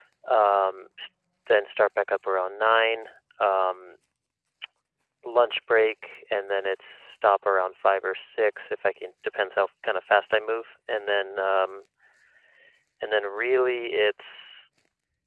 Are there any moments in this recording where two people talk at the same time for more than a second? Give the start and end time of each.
none

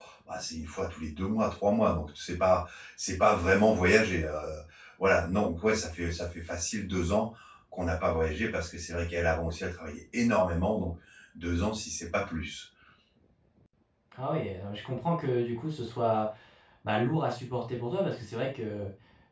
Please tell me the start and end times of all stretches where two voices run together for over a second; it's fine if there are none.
none

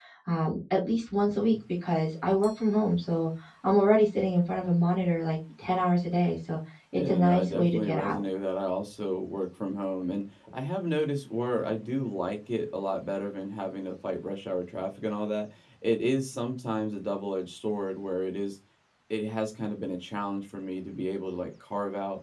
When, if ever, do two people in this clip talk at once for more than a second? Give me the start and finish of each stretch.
6.9-8.2

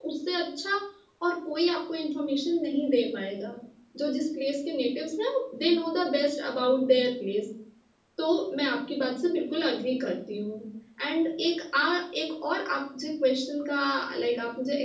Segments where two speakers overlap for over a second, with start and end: none

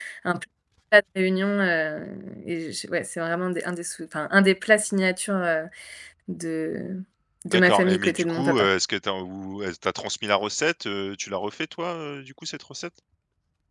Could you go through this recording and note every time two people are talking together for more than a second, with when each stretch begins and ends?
7.5-8.7

